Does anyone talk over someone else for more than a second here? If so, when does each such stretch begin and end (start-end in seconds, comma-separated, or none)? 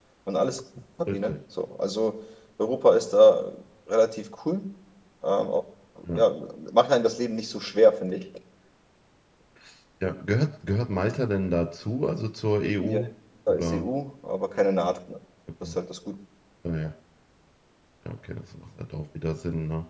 none